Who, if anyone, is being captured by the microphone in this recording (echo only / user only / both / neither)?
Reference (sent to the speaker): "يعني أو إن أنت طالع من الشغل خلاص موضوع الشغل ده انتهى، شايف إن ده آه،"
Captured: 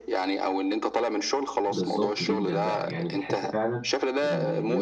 both